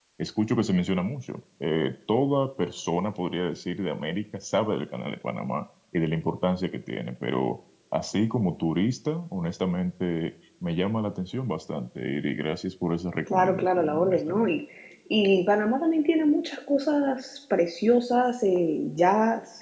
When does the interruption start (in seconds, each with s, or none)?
13.3 s